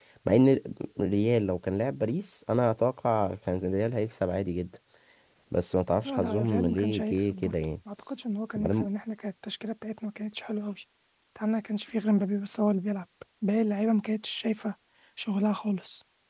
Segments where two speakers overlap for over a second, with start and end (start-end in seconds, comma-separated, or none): 6.0-7.5